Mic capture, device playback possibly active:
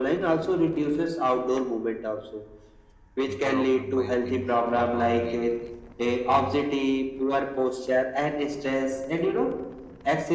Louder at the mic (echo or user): echo